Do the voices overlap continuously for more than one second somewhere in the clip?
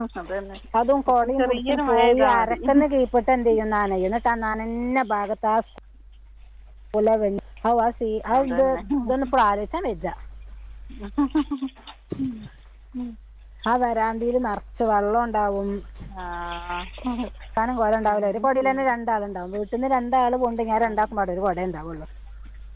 Yes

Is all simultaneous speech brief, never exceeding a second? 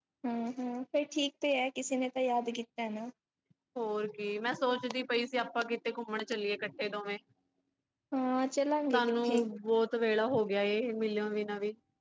Yes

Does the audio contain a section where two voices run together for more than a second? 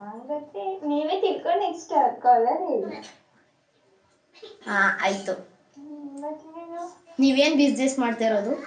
No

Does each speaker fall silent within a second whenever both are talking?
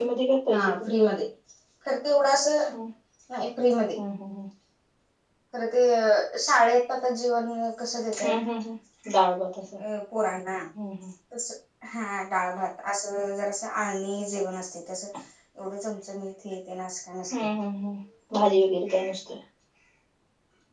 Yes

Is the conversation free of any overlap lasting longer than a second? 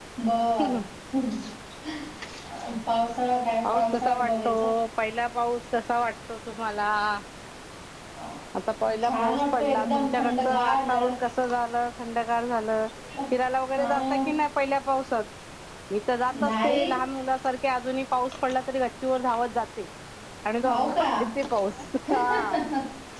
No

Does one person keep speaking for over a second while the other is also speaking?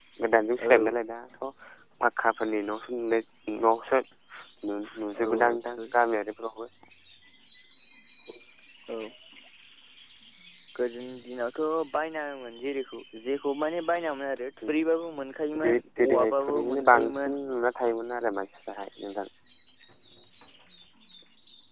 Yes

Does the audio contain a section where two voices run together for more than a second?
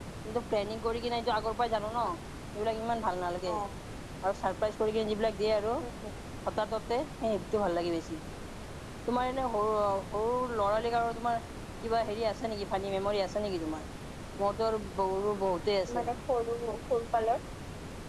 No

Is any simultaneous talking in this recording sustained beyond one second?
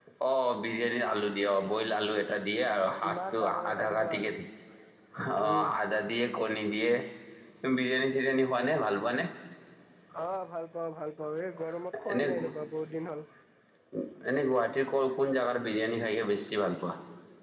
Yes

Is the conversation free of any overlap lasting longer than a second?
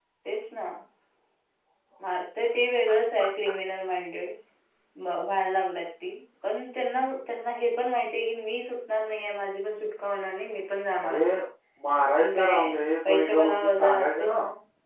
No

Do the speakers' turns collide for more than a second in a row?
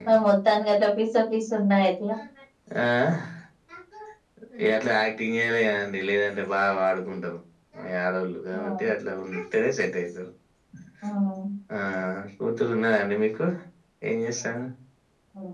No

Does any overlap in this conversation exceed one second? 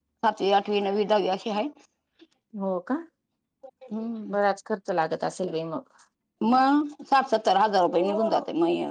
No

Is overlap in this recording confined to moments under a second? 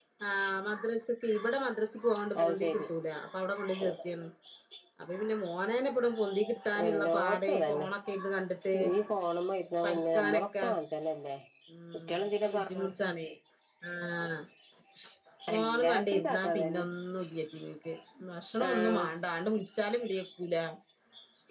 No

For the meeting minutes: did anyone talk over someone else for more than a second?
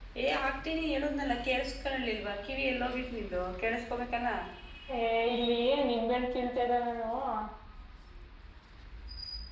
No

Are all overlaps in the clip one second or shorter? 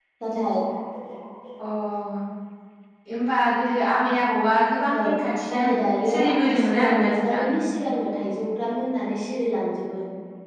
No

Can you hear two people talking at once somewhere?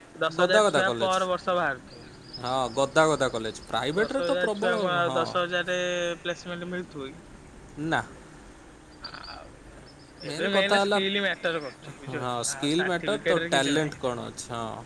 Yes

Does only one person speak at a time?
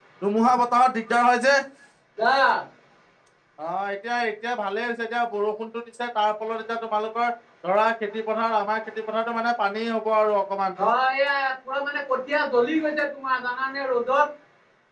Yes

